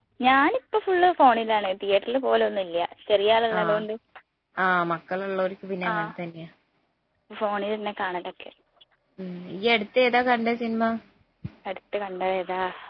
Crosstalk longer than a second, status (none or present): none